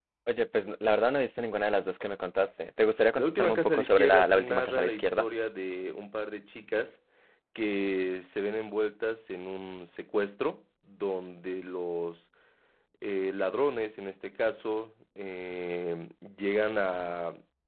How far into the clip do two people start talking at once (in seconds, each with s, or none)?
3.2 s